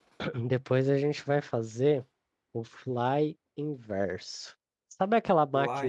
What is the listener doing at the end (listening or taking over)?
listening